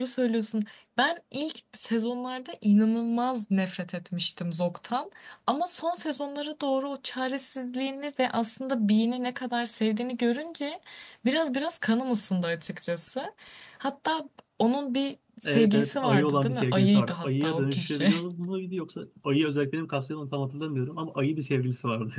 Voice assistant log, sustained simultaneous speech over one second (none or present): present